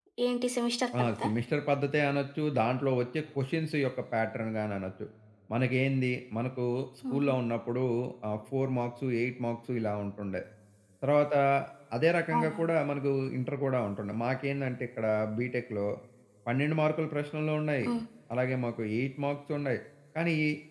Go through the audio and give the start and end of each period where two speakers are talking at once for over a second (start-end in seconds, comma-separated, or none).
none